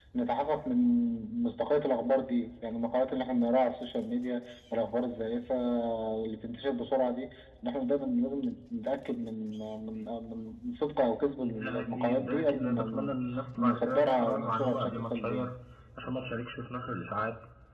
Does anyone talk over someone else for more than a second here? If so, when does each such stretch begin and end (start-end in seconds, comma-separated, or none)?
11.4-13.2, 13.6-15.5